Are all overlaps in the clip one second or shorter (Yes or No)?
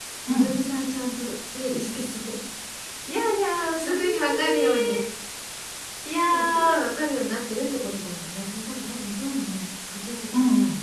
No